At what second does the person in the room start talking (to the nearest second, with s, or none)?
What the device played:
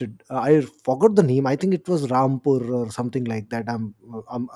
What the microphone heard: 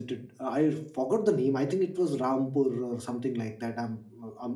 none